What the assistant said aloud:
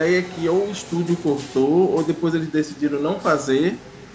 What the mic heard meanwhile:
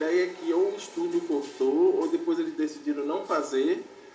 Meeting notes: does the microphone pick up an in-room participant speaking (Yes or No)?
No